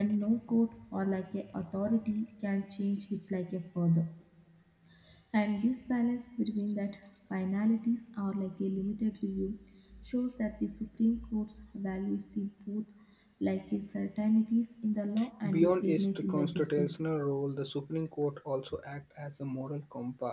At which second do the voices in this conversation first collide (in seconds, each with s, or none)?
15.5 s